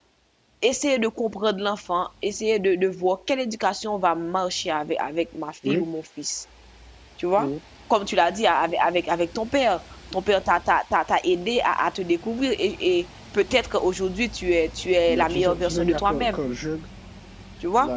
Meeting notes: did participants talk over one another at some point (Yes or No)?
Yes